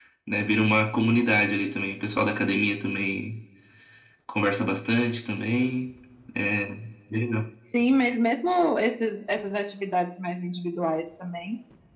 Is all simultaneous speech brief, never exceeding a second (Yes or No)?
Yes